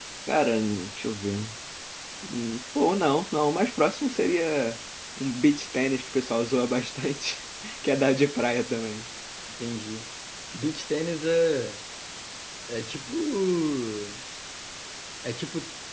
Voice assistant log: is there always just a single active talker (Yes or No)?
Yes